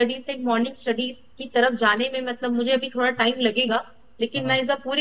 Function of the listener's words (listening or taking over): listening